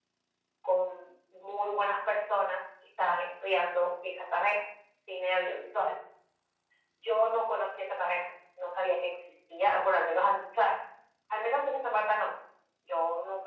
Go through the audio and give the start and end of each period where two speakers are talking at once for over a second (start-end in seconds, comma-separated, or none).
none